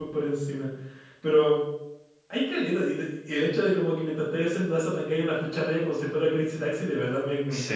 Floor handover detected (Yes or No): Yes